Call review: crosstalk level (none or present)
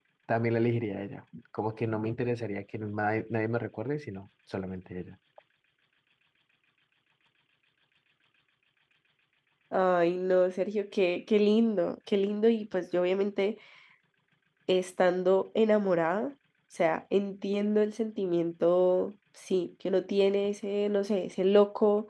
none